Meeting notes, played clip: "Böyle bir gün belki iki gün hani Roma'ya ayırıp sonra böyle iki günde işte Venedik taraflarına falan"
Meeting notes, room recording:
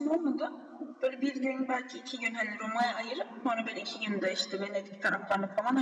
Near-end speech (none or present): none